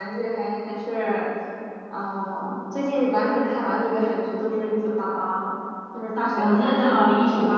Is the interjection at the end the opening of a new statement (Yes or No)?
Yes